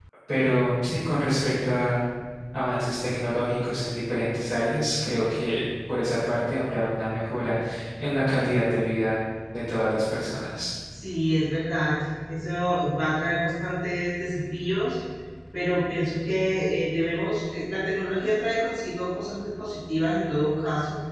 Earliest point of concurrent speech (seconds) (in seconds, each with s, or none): none